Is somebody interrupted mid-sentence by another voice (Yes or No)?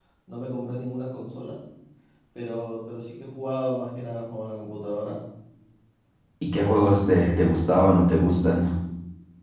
No